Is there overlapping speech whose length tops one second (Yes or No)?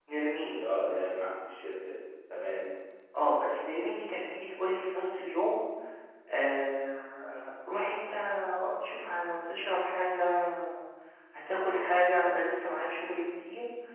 No